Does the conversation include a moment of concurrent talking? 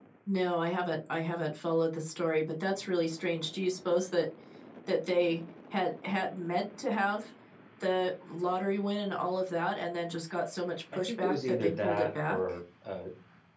Yes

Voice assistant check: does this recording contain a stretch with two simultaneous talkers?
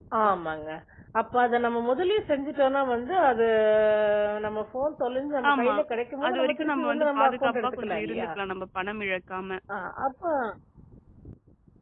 Yes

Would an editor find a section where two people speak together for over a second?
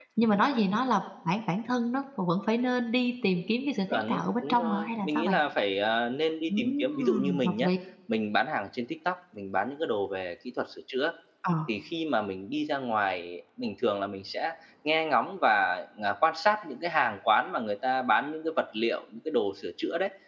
Yes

